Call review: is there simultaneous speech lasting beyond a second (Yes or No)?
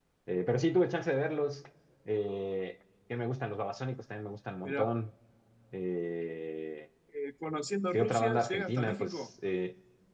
Yes